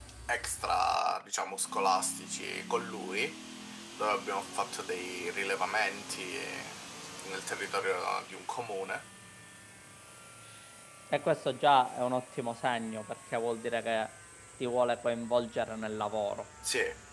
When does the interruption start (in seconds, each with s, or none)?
none